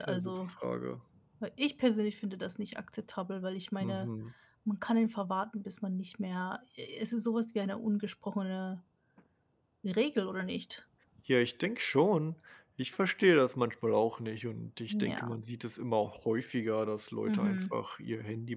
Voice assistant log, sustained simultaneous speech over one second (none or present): none